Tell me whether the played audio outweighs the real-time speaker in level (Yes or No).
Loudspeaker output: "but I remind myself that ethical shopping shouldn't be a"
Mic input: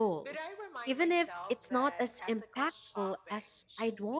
No